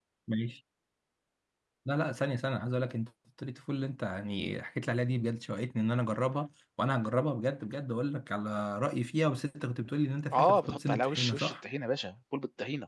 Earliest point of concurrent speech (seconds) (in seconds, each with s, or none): 10.3 s